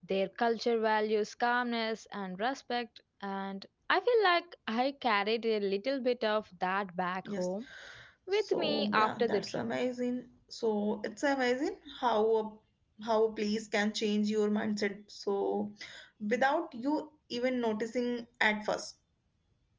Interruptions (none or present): present